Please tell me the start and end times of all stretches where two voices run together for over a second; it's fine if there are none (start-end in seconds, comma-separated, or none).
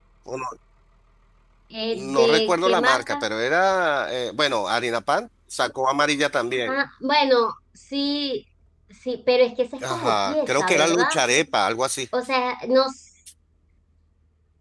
1.9-3.2, 9.8-11.1